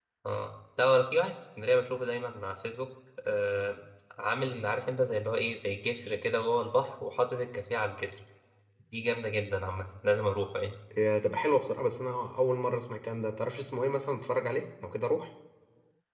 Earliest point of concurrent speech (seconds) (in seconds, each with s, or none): none